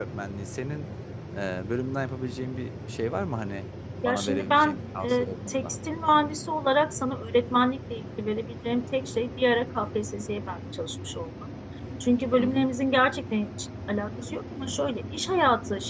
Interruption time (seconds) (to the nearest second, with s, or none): 4 s